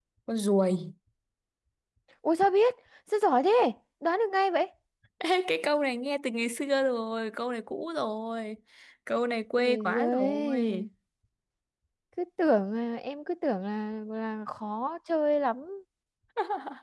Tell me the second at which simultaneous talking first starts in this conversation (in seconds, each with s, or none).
9.6 s